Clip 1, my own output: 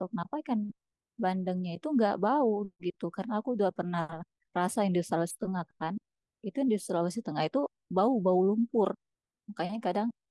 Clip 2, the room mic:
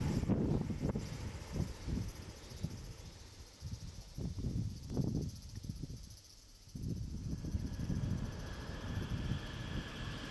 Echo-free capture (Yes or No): Yes